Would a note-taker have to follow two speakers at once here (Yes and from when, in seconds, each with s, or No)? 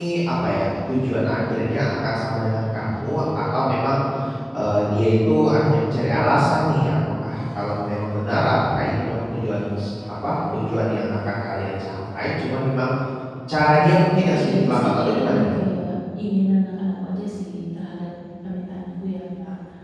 Yes, from 14.3 s